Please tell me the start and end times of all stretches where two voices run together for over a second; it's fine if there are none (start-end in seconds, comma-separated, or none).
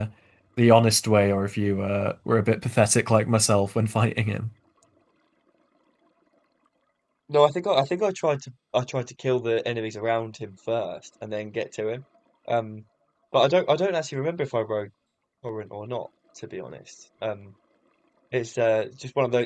none